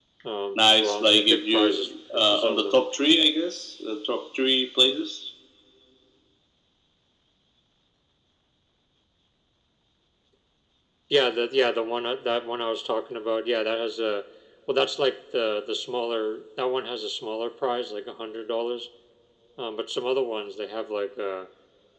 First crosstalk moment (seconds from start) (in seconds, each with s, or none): 0.6 s